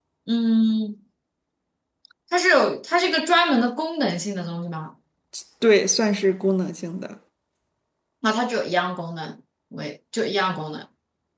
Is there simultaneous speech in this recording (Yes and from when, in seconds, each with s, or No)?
No